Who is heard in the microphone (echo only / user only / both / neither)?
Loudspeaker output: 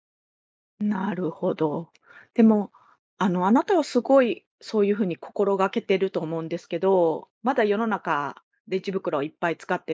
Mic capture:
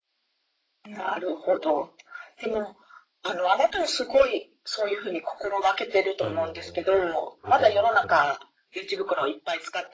both